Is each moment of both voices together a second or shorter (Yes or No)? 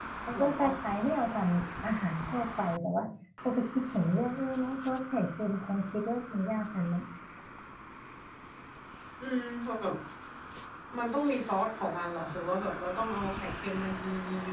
Yes